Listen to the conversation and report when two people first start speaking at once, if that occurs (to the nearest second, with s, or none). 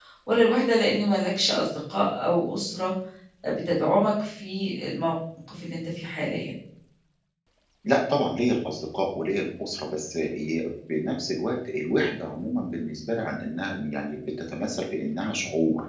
none